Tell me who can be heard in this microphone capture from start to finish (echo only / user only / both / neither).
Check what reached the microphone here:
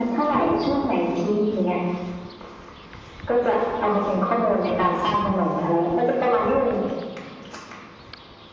echo only